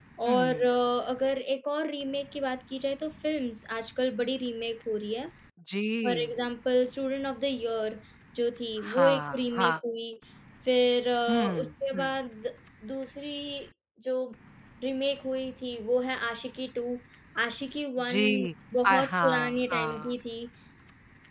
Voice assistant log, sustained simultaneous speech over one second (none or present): present